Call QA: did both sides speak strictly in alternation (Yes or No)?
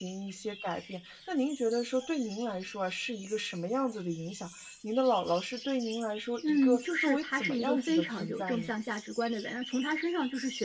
No